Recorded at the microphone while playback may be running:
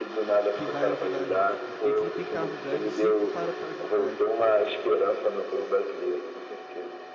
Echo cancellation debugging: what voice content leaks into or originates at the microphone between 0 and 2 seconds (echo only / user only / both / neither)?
both